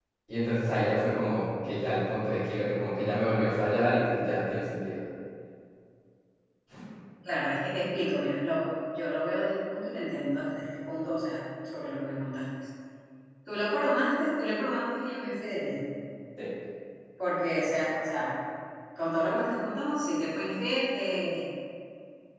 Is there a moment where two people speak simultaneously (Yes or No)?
No